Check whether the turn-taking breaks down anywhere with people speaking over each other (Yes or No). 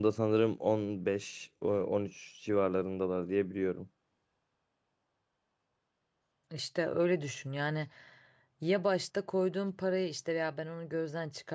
No